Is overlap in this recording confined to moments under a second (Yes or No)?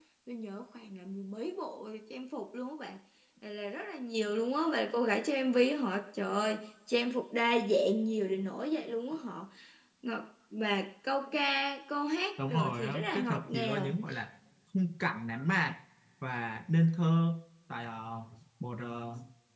No